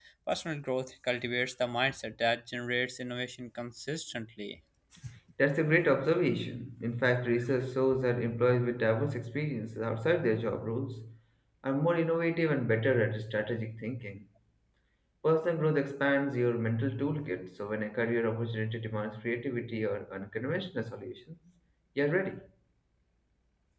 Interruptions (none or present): none